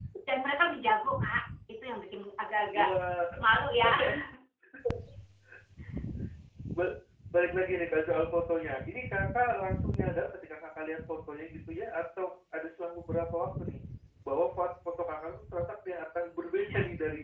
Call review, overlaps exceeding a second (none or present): none